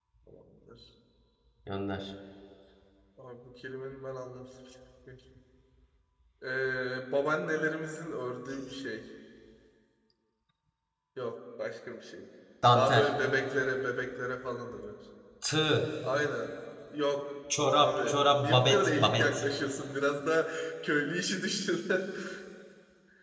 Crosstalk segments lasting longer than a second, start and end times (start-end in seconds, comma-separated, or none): 17.7-19.4